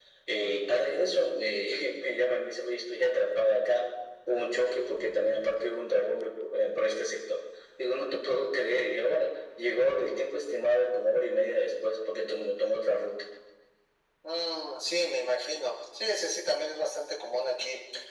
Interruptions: none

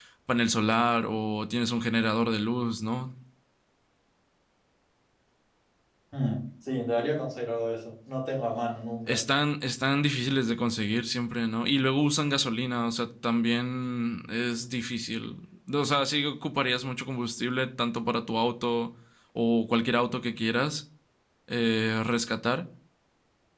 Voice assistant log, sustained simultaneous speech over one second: none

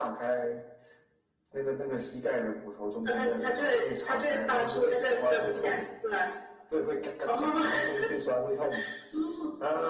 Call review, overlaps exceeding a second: present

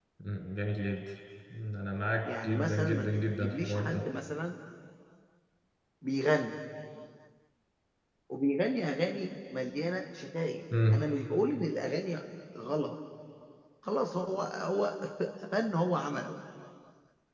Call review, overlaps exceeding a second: present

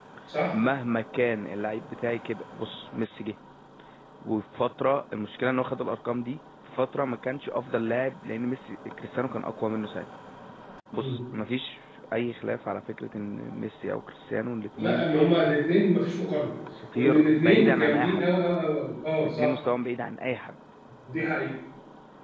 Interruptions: present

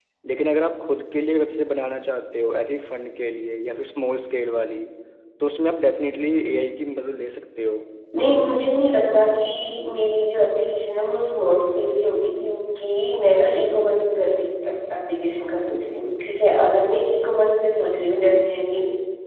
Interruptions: none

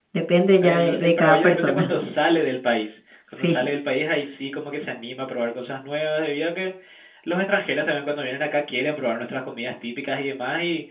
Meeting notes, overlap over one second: present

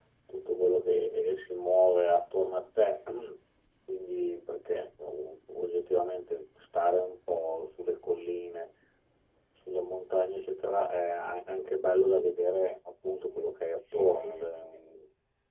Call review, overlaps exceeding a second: present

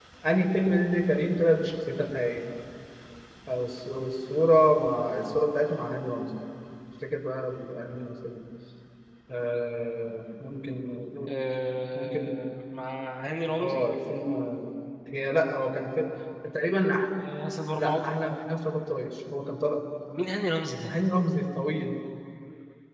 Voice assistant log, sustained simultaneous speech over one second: none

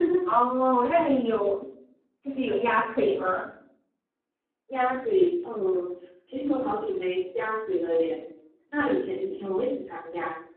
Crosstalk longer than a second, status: none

